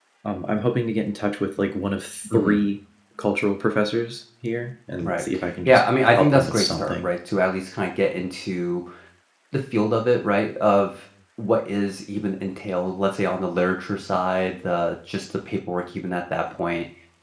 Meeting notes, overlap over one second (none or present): present